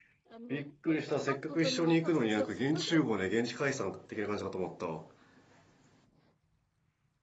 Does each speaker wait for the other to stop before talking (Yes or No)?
No